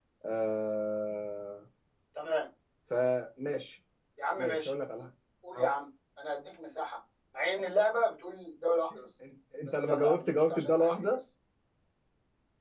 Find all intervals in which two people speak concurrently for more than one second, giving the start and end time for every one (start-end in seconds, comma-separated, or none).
9.8-11.2